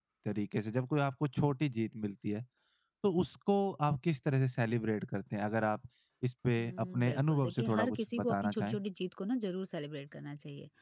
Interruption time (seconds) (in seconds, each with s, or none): 6.6 s